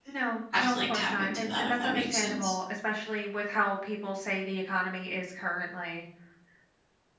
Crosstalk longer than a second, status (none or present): present